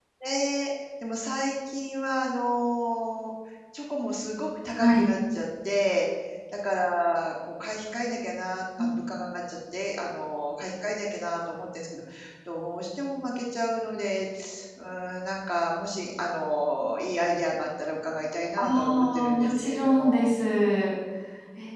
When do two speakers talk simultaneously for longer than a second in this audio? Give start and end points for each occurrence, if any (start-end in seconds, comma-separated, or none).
18.6-20.3